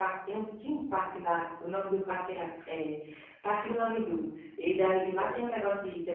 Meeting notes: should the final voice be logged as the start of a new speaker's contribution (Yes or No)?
No